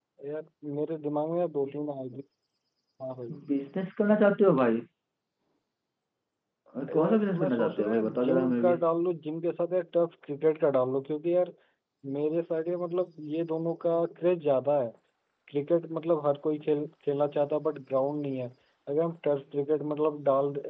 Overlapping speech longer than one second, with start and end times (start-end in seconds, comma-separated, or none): 6.9-8.7